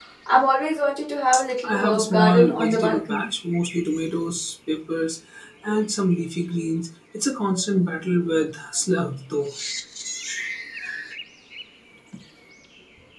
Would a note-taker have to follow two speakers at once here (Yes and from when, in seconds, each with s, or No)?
Yes, from 1.6 s